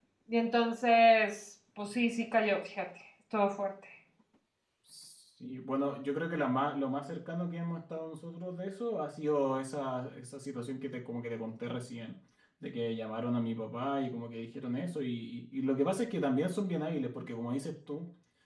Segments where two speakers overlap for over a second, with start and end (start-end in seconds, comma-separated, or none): none